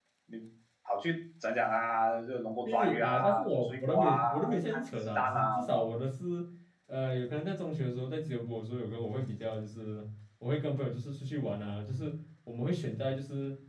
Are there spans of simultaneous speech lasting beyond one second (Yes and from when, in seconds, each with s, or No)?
Yes, from 2.6 s